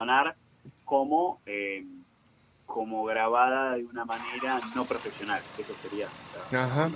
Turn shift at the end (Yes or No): Yes